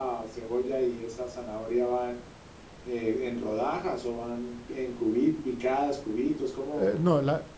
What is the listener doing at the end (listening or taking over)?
taking over